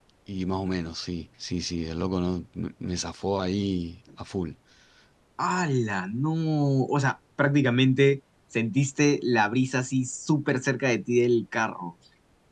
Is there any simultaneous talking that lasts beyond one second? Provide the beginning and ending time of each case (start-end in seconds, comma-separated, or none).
none